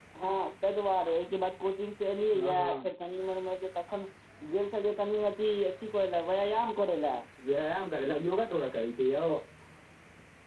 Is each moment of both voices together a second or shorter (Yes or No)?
Yes